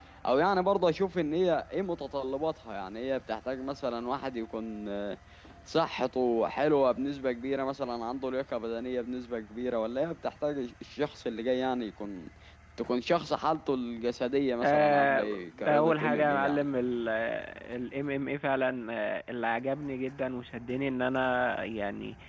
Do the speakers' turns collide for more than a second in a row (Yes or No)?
Yes